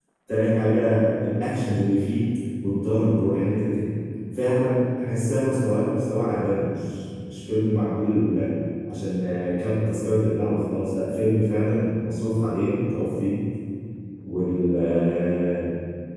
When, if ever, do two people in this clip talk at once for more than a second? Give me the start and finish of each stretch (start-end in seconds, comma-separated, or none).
none